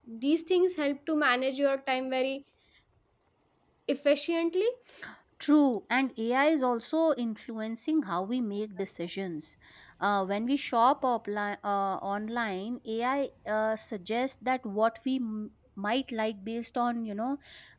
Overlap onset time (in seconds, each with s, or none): none